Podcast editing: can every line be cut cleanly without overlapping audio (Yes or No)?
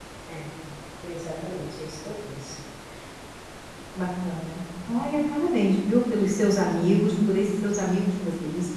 Yes